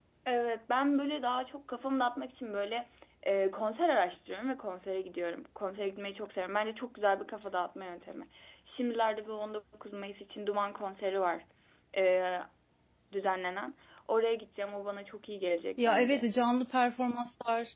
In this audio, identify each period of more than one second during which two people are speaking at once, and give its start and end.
none

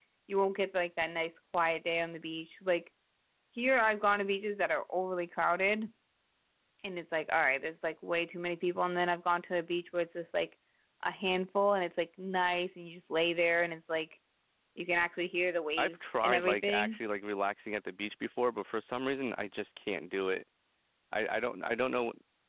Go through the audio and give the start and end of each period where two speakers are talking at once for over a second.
15.8-17.0

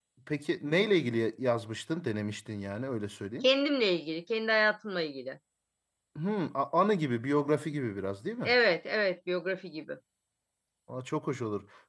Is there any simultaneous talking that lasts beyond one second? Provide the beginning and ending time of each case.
none

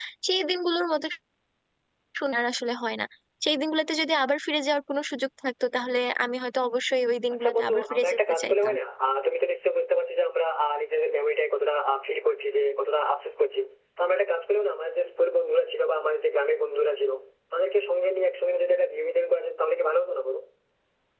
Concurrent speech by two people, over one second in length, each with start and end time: 7.3-8.7

